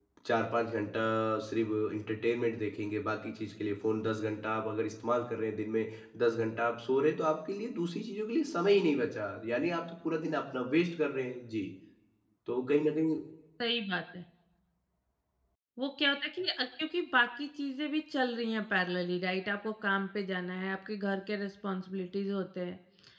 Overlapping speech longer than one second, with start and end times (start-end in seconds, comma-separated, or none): none